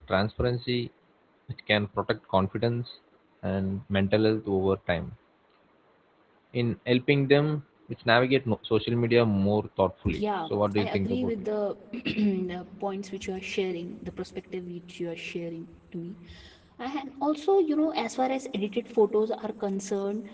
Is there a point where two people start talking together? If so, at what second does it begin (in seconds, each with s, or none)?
10.1 s